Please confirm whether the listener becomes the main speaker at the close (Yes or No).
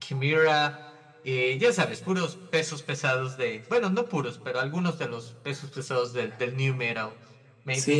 Yes